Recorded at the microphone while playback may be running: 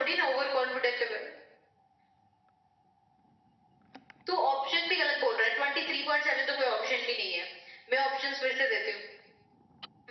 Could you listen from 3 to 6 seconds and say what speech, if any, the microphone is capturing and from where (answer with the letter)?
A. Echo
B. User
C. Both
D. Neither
A